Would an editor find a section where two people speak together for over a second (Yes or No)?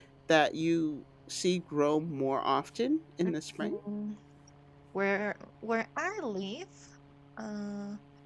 No